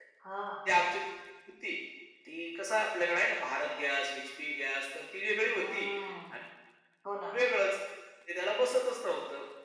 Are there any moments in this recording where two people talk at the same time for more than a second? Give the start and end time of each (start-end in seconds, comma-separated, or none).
none